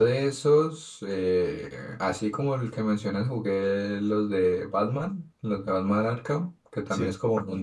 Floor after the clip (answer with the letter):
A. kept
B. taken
A